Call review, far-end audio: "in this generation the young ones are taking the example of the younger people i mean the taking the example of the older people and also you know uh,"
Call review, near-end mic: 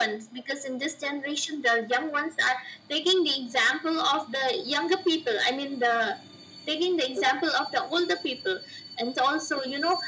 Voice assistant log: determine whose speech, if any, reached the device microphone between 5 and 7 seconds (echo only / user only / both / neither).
echo only